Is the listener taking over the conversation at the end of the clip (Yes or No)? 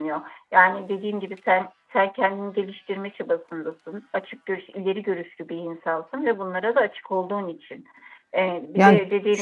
No